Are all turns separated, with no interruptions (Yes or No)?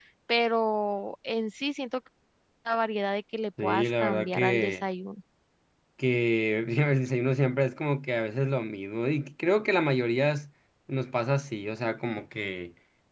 No